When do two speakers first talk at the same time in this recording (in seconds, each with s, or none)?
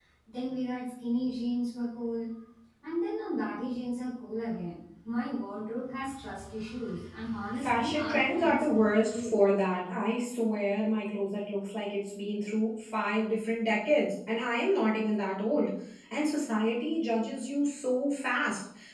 7.6 s